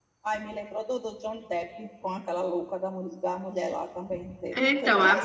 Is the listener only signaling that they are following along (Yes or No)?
No